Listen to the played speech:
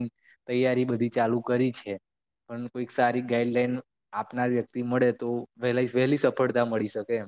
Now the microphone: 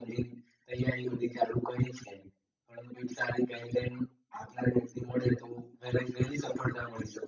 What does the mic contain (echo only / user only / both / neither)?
echo only